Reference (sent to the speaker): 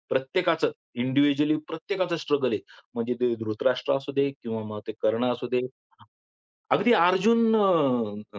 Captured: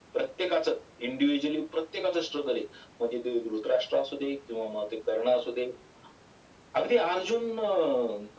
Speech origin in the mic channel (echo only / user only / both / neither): echo only